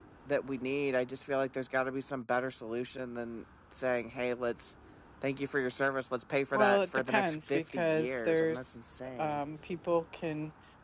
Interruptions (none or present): present